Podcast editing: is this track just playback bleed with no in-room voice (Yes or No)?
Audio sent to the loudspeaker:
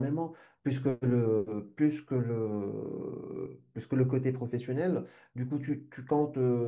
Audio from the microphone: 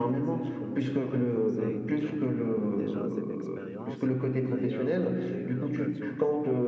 No